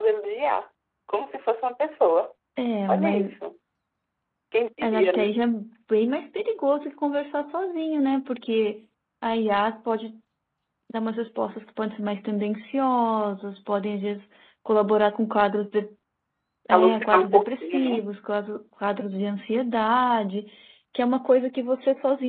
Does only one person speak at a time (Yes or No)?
No